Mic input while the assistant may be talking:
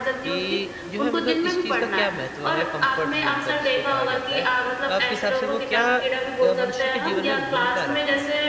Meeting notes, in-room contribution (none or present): present